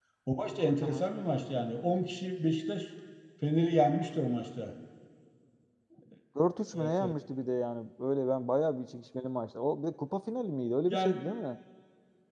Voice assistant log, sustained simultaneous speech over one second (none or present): none